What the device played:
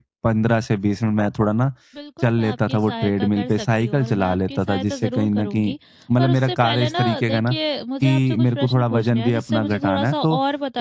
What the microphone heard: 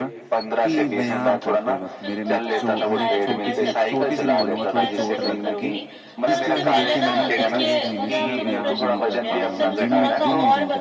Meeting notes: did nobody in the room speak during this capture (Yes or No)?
No